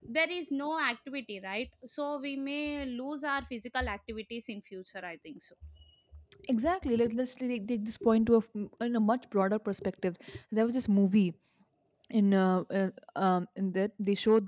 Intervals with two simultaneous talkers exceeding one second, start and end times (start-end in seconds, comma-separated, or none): none